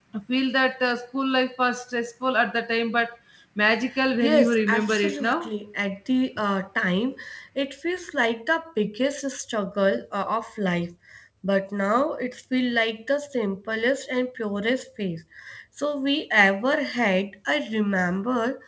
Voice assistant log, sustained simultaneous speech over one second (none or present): present